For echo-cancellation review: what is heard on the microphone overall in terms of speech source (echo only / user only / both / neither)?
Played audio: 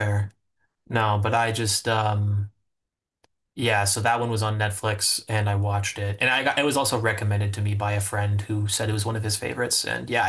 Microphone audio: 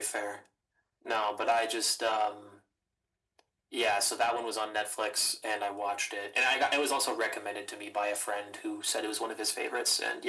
echo only